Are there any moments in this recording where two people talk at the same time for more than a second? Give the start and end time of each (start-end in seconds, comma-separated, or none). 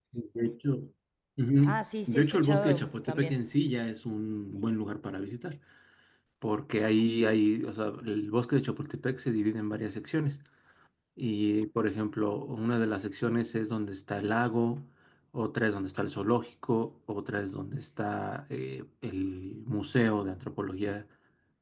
1.6-3.4